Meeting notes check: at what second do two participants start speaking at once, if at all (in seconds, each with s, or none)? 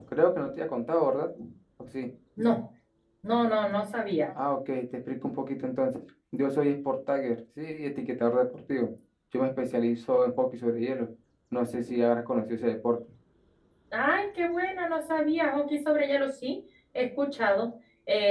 none